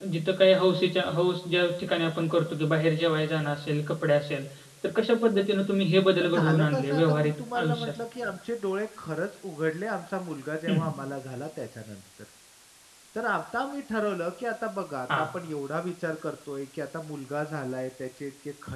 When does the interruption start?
6 s

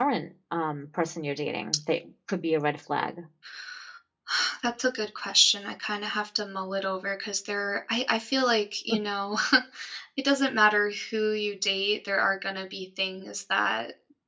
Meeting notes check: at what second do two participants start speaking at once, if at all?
none

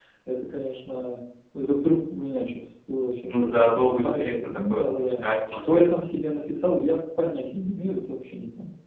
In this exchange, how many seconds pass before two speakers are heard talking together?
3 s

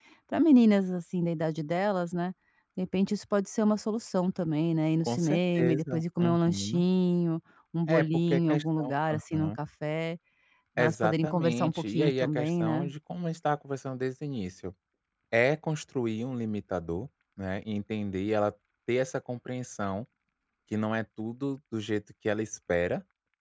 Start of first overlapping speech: 5 s

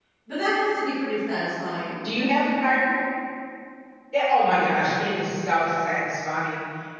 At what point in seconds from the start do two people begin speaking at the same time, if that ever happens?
none

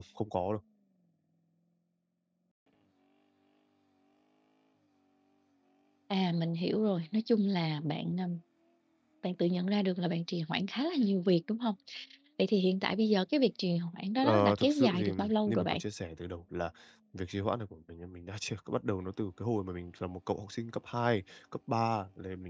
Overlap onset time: 14 s

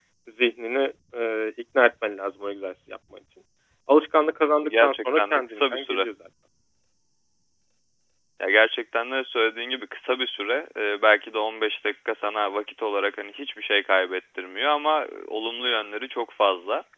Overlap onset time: 5 s

